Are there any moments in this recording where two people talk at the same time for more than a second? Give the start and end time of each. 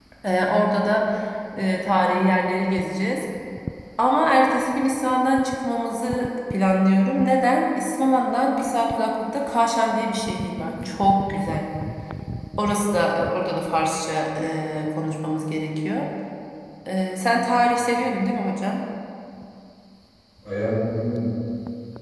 none

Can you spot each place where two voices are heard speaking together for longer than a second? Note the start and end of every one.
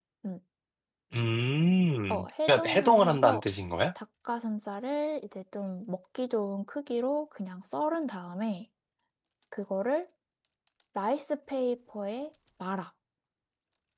2.1-3.4

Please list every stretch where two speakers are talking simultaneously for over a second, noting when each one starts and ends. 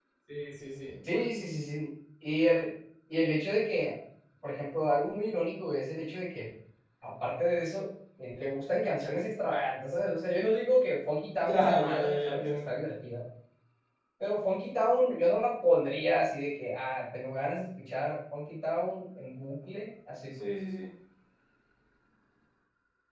11.4-12.7

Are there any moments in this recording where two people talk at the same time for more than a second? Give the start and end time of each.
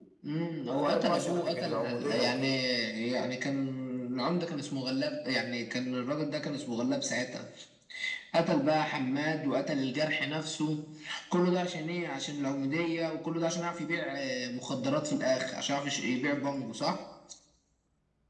0.8-2.5

